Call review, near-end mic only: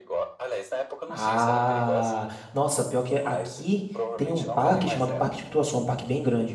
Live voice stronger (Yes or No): Yes